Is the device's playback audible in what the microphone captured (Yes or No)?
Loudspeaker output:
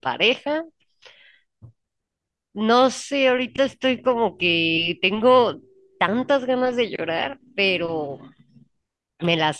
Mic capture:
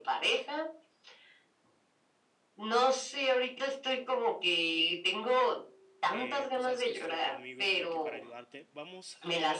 Yes